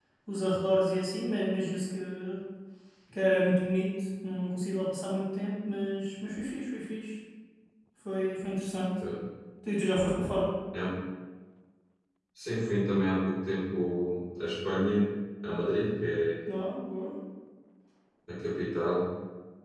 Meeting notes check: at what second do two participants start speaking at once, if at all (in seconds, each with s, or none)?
none